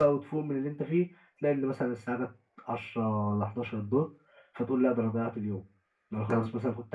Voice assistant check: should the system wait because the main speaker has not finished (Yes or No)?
Yes